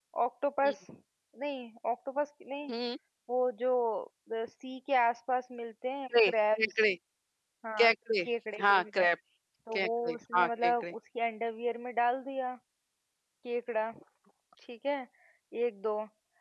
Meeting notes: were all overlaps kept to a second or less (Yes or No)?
No